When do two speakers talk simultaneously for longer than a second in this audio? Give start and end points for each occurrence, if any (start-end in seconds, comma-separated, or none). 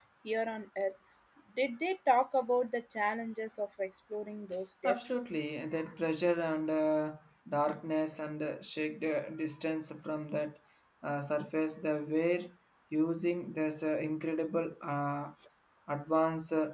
none